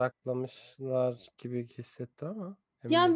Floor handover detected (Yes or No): Yes